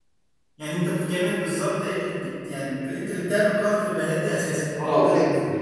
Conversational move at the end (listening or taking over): taking over